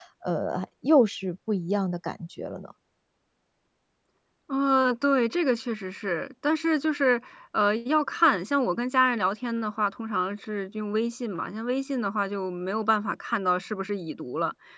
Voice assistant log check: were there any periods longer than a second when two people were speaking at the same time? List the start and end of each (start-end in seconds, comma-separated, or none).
none